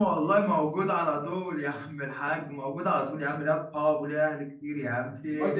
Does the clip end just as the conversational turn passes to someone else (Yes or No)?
Yes